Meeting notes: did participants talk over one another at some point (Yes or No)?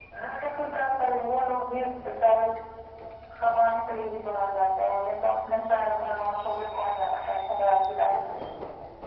No